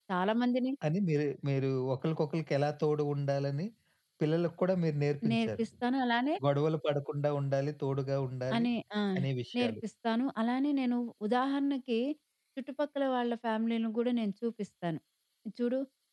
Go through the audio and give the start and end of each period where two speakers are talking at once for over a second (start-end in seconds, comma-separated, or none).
none